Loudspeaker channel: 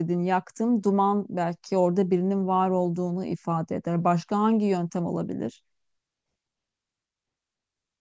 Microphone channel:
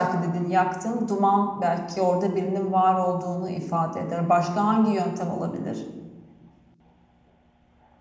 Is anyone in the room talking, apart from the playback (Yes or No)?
No